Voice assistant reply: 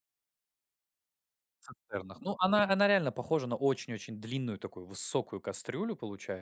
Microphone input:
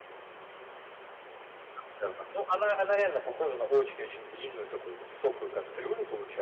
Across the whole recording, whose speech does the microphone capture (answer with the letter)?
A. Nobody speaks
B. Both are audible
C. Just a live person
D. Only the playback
D